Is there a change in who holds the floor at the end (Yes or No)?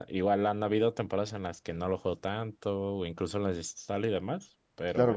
Yes